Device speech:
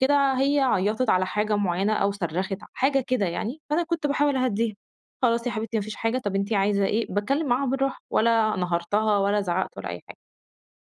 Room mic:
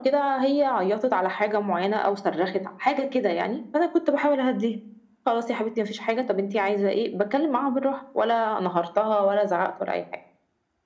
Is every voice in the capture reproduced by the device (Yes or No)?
Yes